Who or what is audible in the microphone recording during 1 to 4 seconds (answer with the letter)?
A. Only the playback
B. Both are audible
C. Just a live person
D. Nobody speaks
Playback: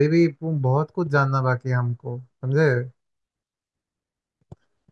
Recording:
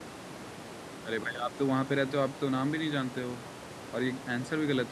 C